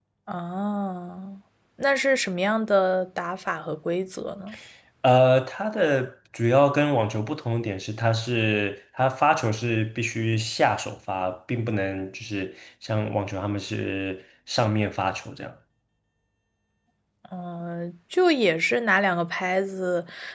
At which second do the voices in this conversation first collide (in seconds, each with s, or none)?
none